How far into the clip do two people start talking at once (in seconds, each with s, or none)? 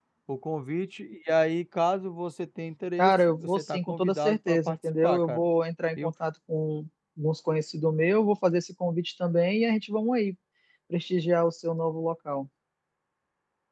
3.0 s